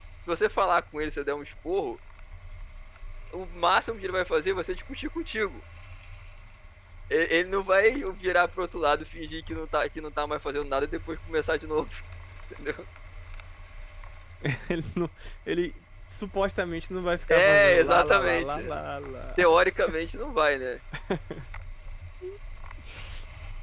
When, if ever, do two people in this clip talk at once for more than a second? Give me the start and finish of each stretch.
17.3-18.6

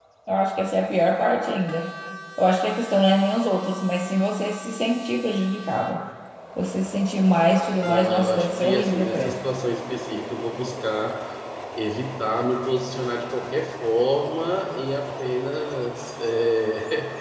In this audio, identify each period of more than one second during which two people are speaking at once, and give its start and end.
7.8-9.4

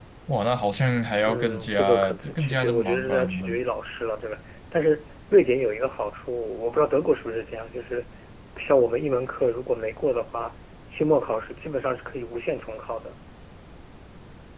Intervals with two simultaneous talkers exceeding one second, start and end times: 1.2-3.6

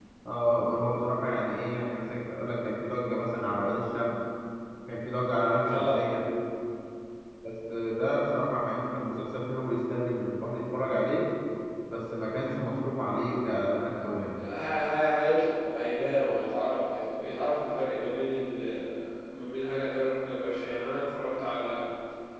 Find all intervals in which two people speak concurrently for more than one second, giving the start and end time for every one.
none

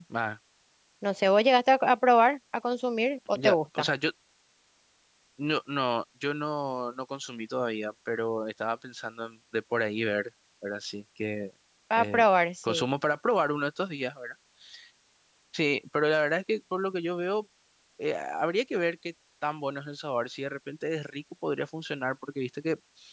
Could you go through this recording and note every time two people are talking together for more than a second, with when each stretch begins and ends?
none

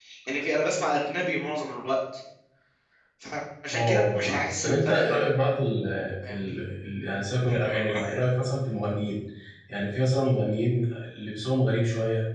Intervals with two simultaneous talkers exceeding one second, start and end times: 3.7-5.2

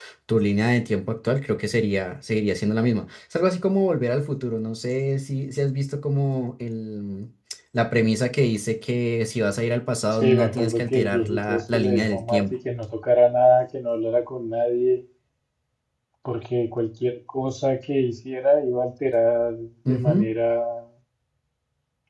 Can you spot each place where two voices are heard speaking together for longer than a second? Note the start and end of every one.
10.1-12.5

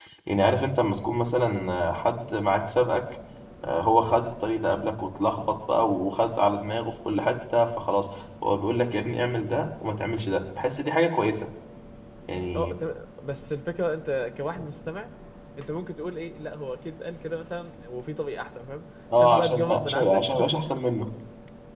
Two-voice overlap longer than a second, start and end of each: 19.2-20.4

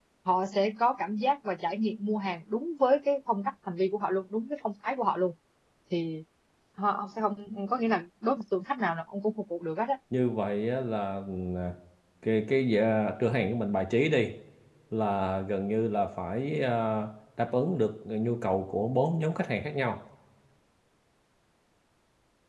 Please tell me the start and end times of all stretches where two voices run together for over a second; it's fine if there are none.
none

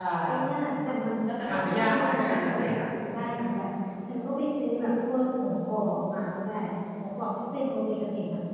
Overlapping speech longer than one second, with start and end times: 1.4-2.7

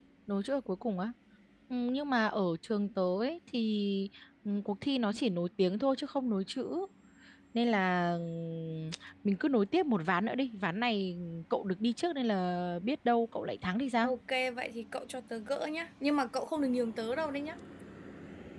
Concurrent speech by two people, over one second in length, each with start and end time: none

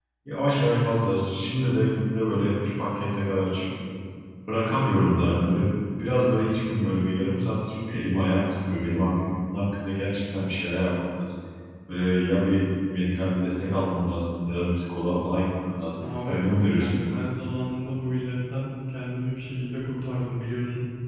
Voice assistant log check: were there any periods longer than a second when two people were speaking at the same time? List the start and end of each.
16.0-17.3

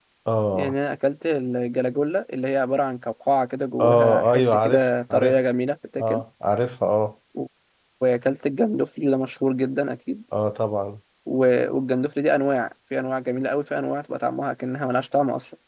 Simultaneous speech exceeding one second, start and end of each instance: 3.8-5.4

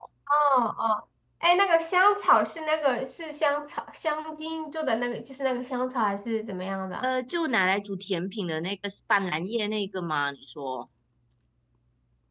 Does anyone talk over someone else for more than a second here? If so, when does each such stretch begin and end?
none

